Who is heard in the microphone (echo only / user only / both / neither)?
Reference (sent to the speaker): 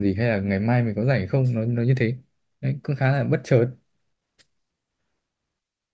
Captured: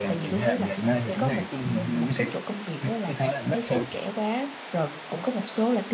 both